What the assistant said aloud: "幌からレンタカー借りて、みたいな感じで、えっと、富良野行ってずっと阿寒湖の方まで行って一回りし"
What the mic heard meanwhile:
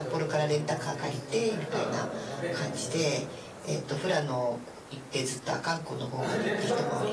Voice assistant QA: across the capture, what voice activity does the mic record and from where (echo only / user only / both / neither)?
both